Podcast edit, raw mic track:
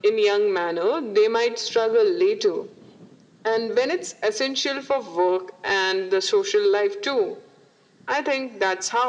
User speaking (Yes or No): No